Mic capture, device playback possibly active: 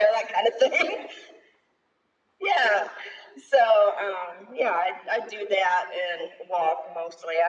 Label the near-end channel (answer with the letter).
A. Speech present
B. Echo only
B